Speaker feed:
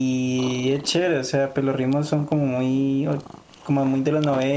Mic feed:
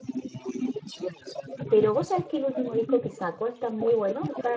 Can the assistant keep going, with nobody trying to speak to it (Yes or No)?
No